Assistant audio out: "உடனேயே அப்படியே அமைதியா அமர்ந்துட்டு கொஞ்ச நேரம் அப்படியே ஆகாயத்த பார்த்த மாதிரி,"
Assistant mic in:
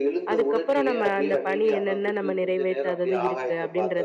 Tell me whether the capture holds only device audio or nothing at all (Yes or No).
No